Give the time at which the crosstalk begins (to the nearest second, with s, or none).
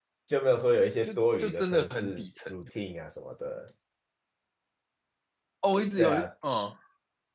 1 s